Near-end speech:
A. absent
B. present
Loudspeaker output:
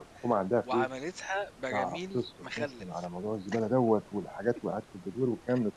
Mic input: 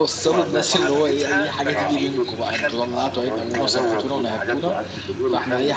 B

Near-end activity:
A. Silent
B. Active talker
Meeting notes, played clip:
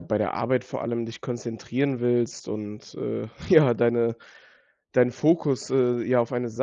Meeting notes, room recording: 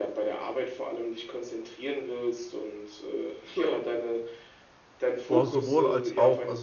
B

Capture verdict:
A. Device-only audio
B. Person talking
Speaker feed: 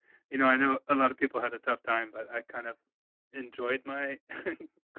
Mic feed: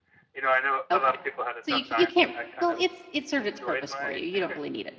B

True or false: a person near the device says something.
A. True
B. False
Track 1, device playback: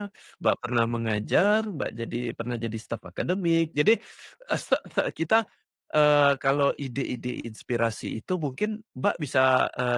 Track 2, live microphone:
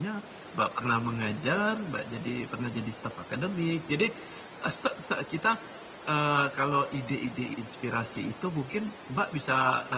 B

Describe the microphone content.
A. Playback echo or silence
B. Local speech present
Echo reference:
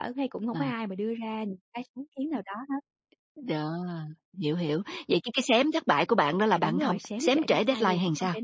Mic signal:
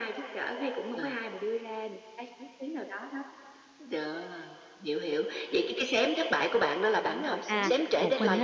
B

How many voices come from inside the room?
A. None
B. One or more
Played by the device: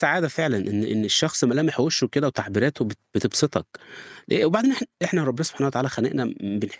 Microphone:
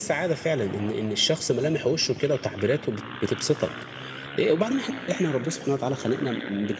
A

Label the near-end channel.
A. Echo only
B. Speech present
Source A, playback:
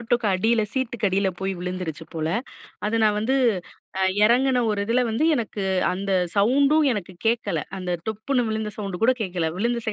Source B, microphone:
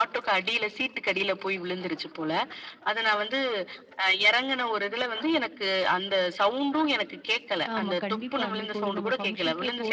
B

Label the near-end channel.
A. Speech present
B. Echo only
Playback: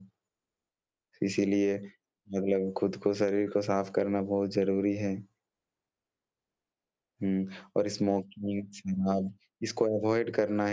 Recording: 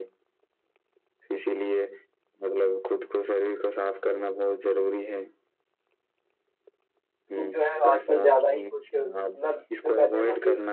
A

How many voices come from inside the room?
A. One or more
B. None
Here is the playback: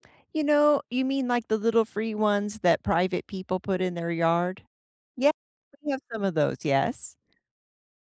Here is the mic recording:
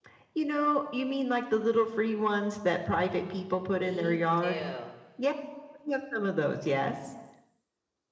A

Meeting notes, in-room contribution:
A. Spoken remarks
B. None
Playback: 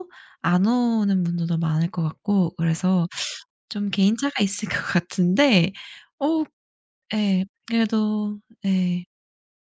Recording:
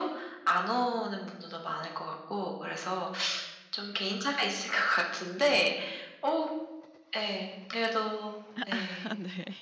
A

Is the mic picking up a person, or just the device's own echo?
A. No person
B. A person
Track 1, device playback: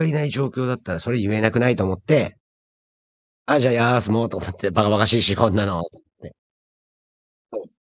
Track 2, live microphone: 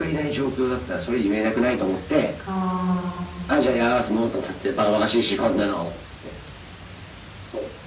B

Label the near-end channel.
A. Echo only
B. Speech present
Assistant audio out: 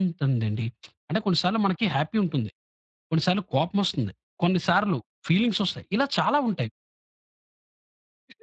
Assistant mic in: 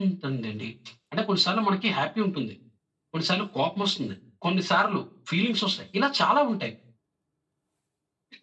A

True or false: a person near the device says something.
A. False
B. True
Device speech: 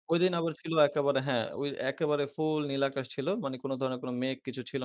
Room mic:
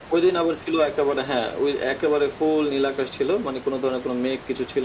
A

